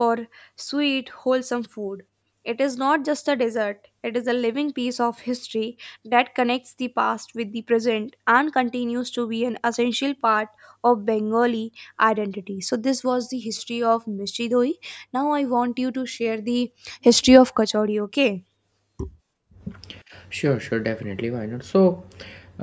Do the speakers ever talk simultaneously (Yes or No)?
No